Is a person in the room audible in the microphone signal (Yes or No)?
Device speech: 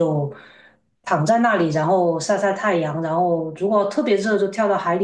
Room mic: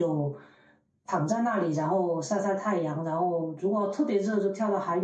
No